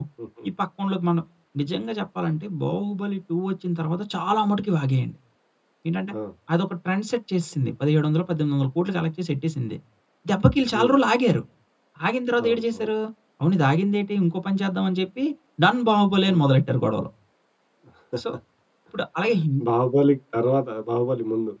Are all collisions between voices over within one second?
Yes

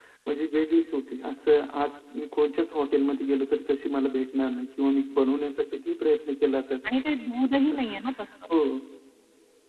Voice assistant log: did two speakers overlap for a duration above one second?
No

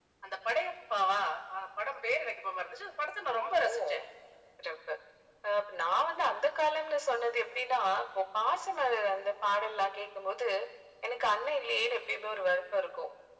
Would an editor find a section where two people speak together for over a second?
No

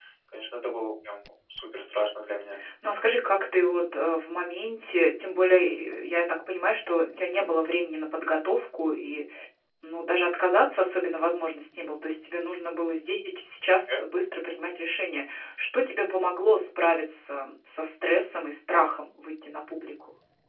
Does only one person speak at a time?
Yes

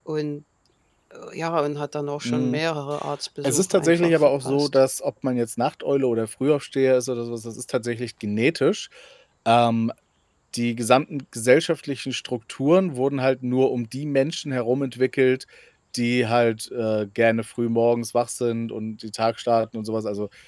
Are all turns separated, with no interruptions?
No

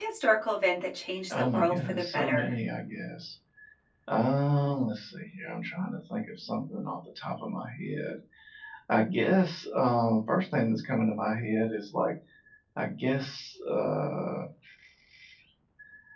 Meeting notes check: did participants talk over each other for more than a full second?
Yes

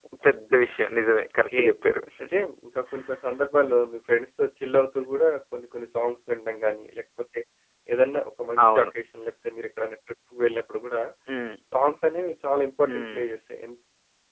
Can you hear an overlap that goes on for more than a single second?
No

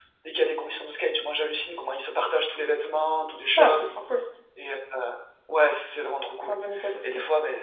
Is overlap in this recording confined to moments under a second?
Yes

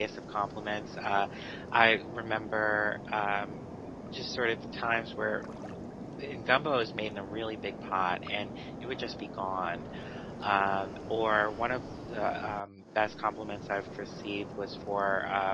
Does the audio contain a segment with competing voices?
No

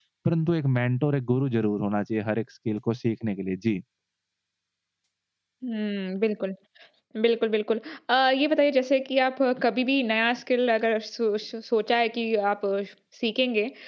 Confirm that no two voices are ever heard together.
Yes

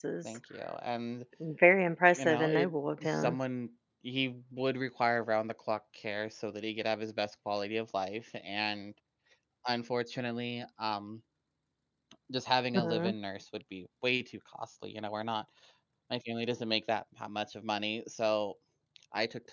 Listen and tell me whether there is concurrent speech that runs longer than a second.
Yes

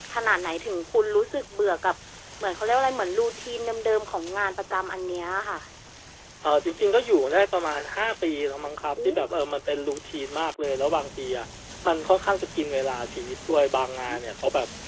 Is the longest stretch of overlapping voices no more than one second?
Yes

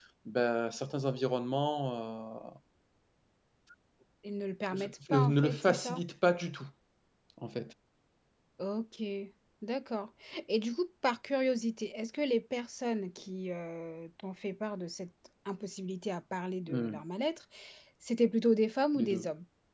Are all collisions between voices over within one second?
No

